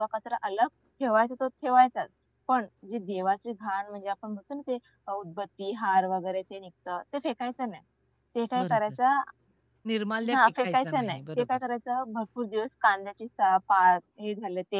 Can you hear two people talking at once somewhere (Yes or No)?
Yes